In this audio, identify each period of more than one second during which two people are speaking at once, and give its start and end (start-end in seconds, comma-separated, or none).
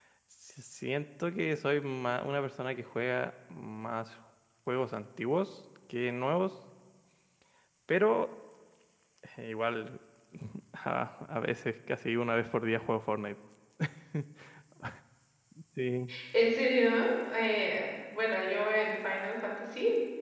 none